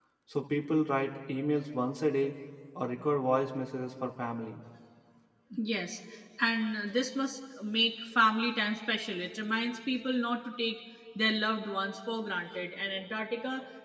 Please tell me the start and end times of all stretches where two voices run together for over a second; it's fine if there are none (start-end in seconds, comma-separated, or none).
none